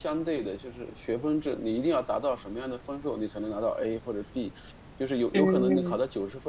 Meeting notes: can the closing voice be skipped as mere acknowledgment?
Yes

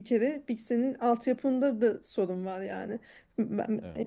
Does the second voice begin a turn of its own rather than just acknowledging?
No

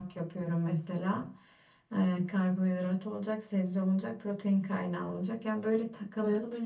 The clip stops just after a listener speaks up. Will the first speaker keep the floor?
Yes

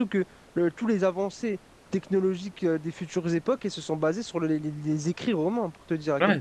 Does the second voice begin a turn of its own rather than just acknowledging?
Yes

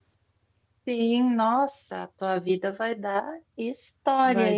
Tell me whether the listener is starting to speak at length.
Yes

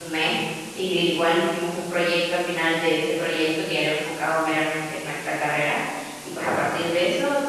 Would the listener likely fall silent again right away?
Yes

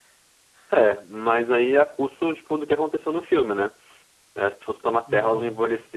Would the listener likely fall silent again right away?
Yes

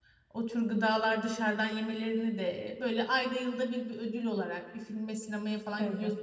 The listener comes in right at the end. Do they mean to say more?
No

